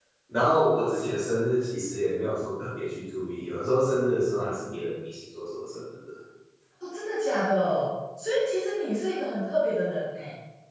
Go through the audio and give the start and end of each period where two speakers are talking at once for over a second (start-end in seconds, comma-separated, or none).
none